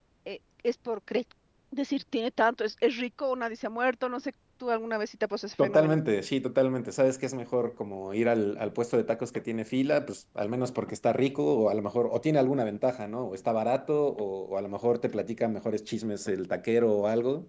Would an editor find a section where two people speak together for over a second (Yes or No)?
No